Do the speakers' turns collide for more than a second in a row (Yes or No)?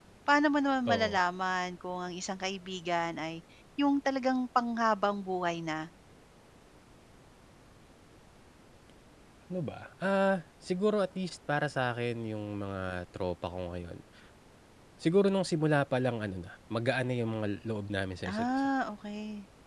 No